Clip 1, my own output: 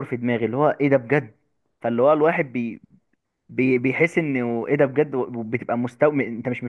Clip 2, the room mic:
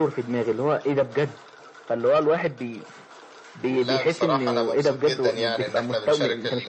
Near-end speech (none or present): present